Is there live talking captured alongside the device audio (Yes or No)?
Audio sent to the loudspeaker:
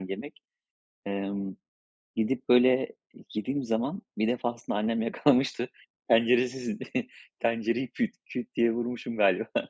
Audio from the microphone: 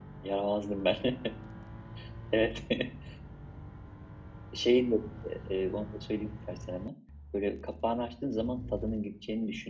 Yes